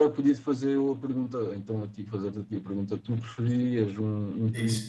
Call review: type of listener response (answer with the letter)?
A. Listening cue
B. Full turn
A